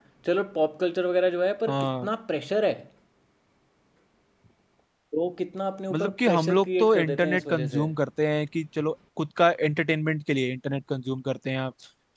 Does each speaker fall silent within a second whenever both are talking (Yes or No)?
No